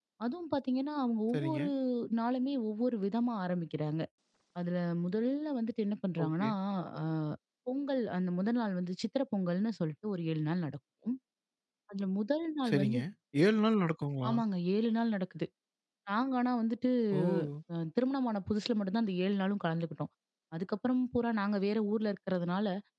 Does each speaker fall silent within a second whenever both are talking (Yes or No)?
Yes